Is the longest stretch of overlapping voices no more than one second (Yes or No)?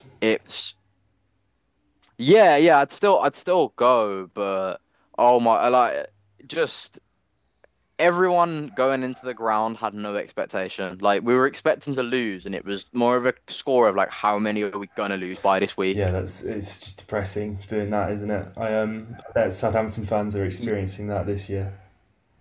Yes